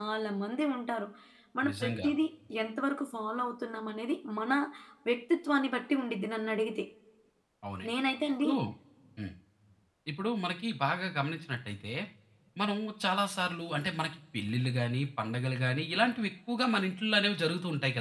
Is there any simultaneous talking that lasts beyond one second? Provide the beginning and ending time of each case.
none

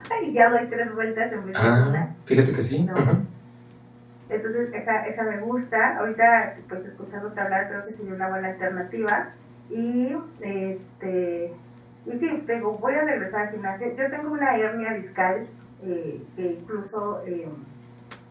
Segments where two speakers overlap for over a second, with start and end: none

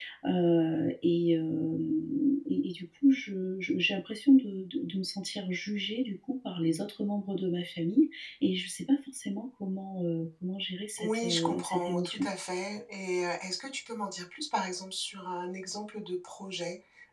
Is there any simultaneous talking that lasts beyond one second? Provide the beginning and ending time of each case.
11.0-12.3

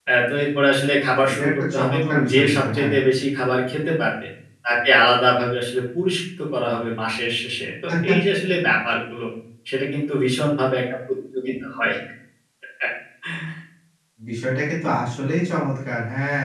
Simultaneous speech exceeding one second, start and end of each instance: 1.3-2.9

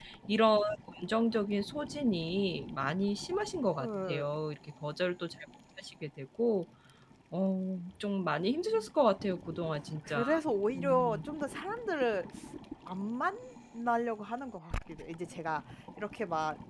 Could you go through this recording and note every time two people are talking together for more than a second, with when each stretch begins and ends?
none

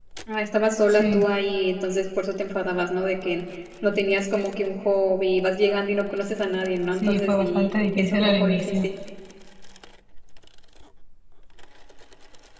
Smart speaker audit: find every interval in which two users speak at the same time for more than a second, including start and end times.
7.0-8.9

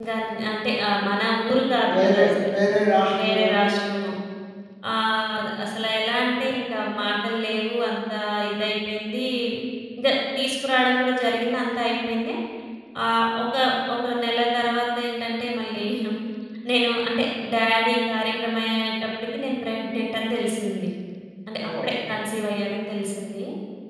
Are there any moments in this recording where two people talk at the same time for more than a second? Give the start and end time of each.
1.9-3.7

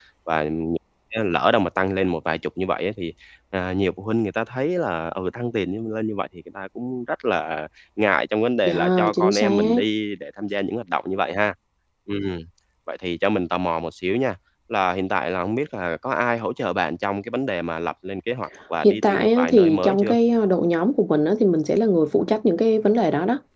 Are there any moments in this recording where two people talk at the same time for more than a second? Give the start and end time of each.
8.6-9.8, 18.8-20.1

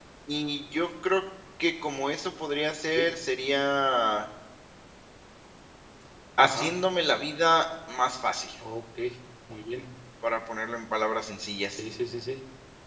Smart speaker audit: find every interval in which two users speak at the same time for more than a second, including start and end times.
none

